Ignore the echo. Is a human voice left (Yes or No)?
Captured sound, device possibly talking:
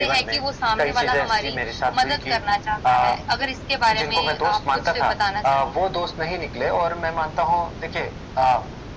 No